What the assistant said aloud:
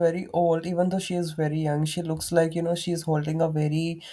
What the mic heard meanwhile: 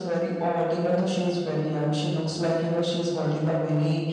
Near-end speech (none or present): none